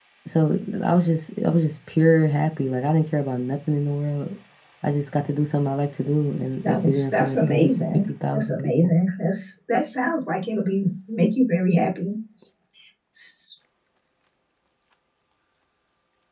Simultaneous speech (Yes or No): Yes